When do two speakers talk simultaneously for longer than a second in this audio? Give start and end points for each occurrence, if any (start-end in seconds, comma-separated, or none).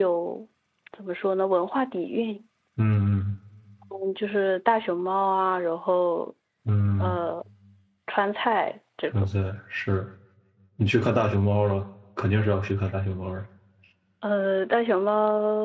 none